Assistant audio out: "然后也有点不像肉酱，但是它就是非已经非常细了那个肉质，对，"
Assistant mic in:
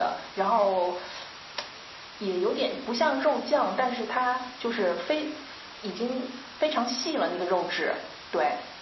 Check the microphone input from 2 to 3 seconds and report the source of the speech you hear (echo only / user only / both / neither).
echo only